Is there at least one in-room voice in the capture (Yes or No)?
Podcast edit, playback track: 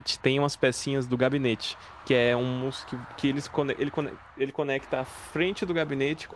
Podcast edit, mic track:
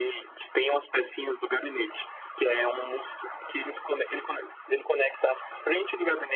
No